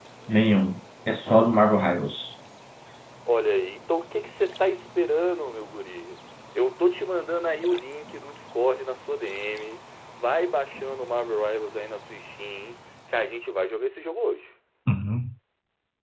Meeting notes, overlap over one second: none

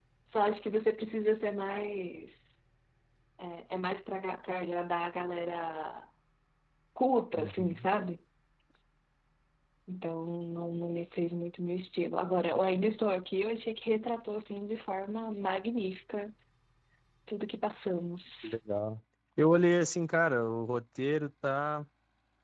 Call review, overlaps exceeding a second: none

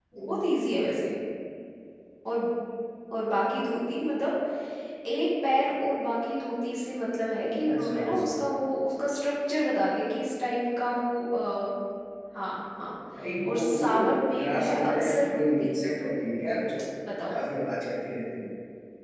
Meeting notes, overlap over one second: present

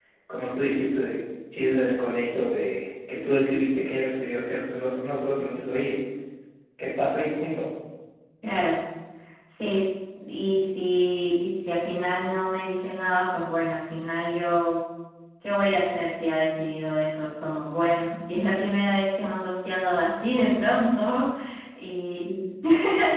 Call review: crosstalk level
none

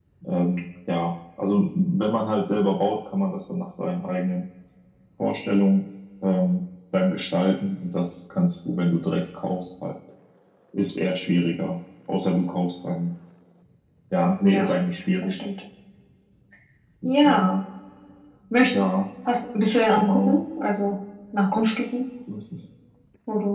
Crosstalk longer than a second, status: none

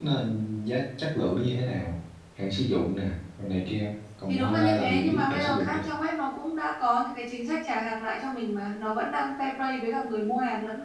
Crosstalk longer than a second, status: present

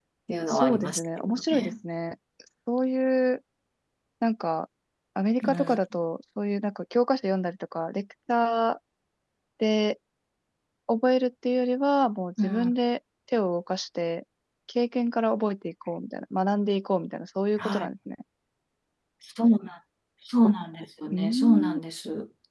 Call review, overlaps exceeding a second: present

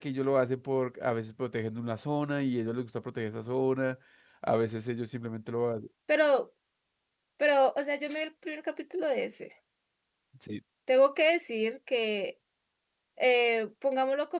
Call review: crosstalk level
none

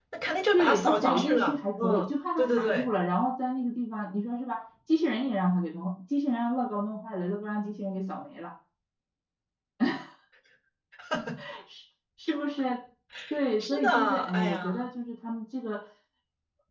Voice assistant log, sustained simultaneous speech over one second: present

